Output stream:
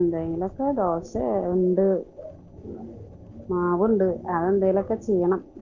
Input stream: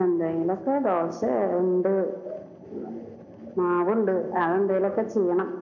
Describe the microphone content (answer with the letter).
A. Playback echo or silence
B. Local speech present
A